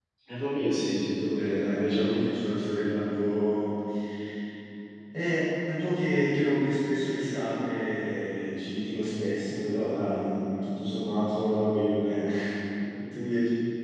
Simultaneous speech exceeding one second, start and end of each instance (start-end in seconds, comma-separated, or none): 0.8-2.3